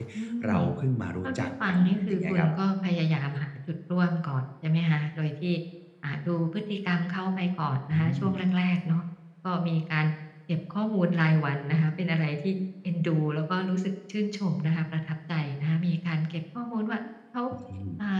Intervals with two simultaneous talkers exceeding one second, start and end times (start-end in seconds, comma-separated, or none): 1.2-2.5